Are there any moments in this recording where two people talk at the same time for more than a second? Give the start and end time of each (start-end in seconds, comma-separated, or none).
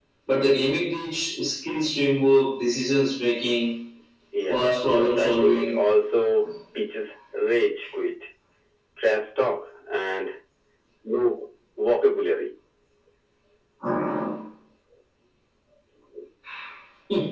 4.5-5.8